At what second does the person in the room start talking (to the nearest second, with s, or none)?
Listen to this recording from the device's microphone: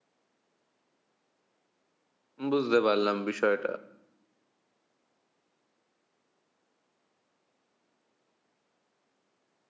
3 s